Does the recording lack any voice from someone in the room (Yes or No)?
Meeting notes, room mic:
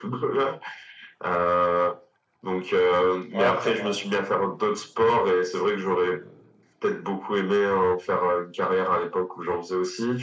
No